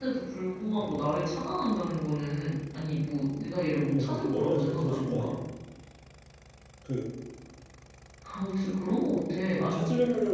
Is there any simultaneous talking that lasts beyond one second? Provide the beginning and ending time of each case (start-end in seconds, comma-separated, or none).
3.9-5.3